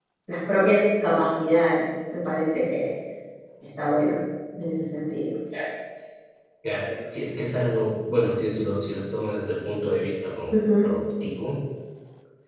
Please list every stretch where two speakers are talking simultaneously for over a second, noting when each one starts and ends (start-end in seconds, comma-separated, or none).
none